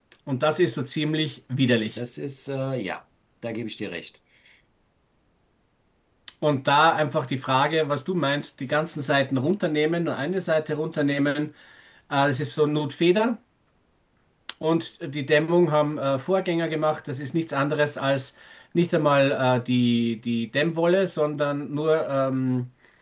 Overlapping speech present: No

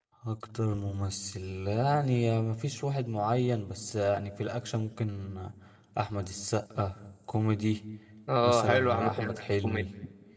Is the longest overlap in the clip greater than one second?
Yes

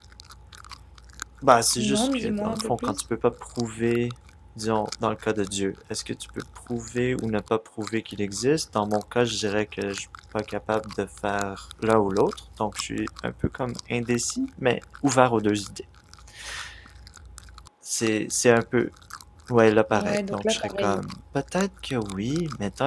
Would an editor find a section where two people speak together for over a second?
Yes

